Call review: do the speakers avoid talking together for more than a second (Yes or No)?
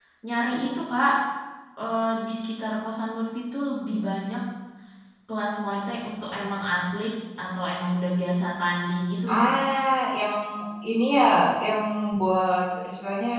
Yes